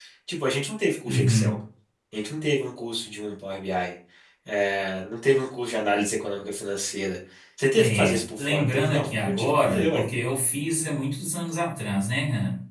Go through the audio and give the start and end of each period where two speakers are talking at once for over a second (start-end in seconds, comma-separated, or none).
7.8-10.0